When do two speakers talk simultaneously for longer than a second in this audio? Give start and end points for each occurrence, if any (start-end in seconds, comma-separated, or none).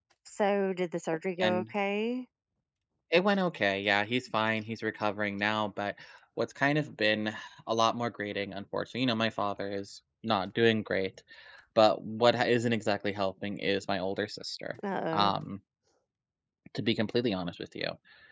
none